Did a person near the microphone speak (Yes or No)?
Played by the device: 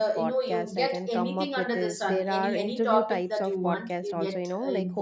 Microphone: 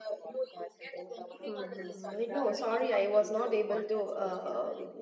Yes